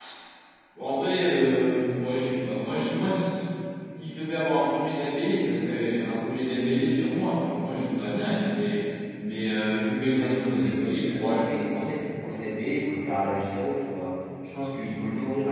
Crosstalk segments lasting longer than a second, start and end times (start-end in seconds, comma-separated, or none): 10.5-11.9